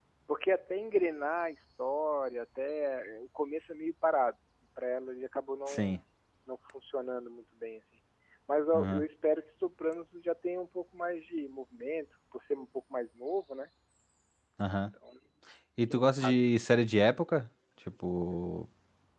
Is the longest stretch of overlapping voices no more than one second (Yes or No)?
Yes